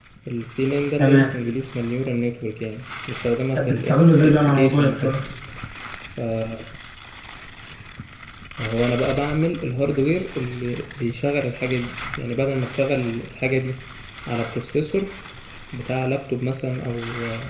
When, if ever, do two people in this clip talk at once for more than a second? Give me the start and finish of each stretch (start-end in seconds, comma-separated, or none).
3.5-5.2